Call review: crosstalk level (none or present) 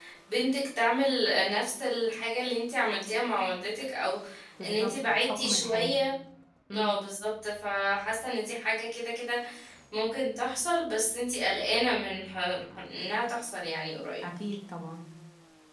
present